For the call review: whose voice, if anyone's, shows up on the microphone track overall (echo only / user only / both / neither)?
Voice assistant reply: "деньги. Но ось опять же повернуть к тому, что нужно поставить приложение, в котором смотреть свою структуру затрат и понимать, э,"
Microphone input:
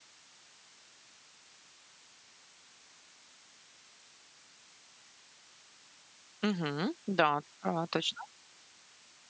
user only